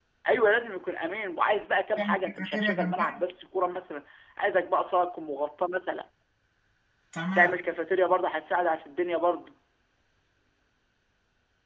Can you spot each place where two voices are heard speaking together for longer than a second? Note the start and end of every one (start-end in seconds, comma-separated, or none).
2.0-3.2